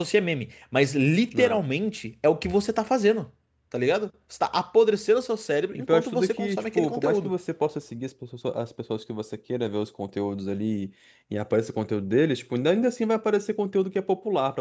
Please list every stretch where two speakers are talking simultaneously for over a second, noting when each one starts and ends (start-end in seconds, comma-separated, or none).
5.8-7.3